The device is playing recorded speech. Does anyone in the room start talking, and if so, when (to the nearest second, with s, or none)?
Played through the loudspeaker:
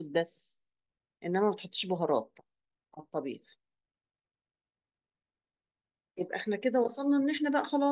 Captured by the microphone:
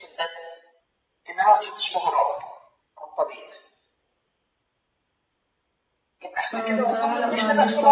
7 s